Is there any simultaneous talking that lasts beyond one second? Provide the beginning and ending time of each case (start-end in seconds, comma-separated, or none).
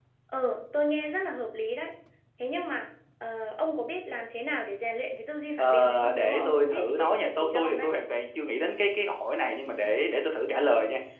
5.6-7.9